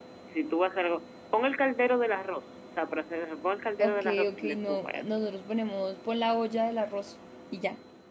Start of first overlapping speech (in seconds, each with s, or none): 3.8 s